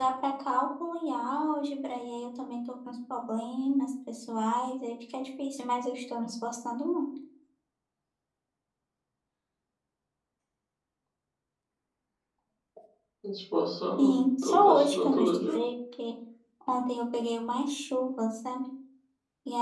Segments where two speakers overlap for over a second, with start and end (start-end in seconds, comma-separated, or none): 14.0-15.5